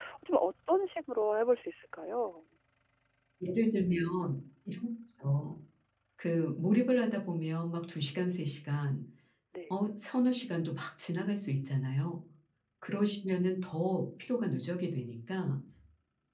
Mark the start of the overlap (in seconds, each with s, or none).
none